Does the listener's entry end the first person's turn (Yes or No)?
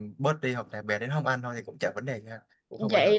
Yes